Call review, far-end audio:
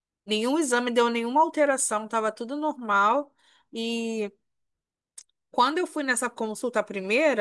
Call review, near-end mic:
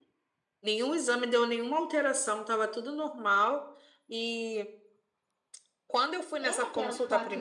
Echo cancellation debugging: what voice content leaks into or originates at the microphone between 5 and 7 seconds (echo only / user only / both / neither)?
both